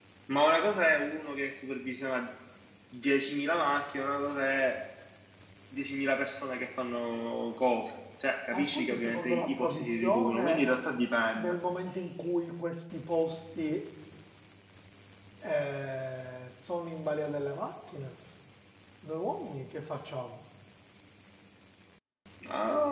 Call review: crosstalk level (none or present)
present